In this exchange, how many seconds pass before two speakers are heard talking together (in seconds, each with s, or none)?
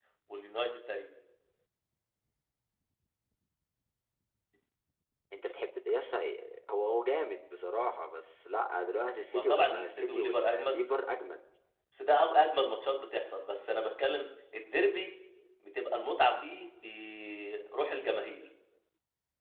9.3 s